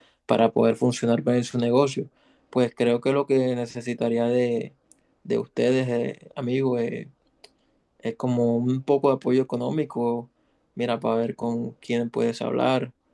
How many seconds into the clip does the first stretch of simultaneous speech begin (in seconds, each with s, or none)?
none